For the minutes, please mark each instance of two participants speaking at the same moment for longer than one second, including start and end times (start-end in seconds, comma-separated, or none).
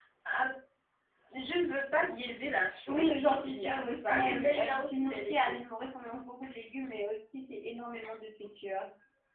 2.9-5.6